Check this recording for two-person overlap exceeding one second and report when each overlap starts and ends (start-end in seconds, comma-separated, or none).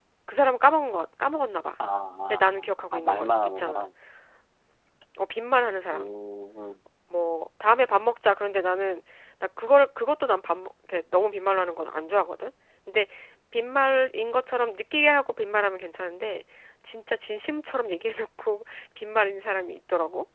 2.3-3.9